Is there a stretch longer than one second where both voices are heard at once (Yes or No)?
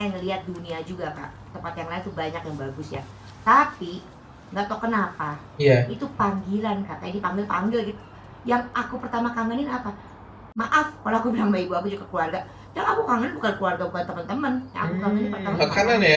Yes